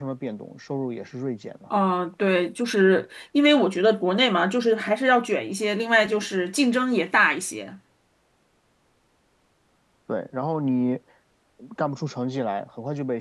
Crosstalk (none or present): none